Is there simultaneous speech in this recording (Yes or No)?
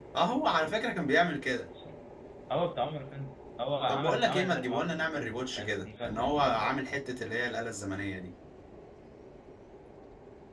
Yes